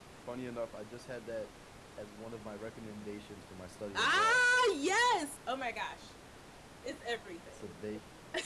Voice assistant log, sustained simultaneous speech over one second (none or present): none